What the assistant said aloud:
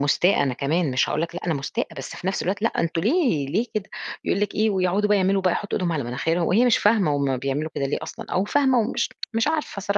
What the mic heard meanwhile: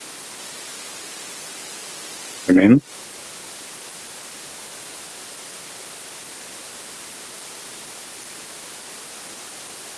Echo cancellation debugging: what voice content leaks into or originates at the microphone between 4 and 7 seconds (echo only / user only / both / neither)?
neither